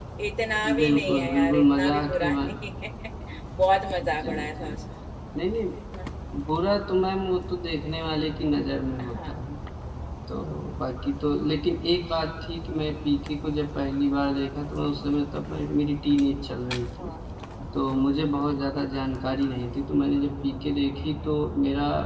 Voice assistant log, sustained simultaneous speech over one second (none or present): present